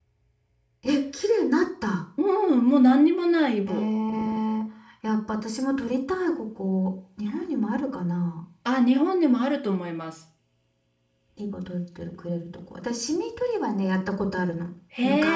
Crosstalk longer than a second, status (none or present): none